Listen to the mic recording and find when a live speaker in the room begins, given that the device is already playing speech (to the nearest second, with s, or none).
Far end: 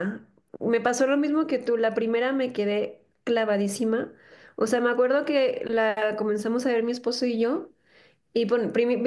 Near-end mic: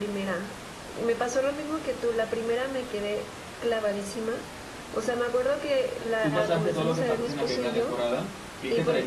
6 s